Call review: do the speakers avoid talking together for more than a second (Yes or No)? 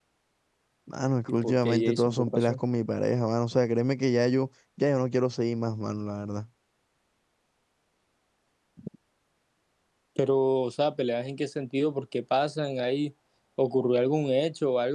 No